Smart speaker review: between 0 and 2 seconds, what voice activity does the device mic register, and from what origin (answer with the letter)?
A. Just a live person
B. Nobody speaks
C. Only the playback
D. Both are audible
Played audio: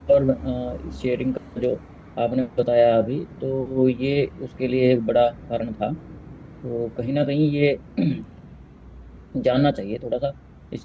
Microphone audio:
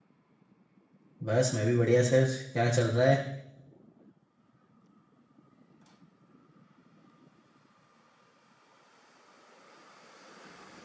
A